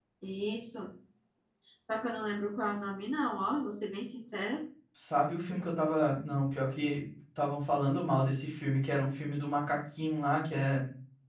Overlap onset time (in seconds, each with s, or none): none